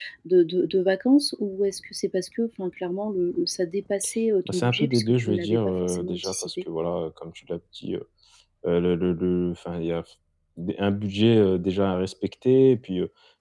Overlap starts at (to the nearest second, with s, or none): 4 s